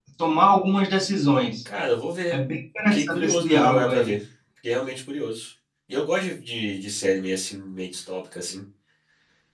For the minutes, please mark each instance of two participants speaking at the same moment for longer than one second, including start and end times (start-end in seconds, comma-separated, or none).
2.9-4.2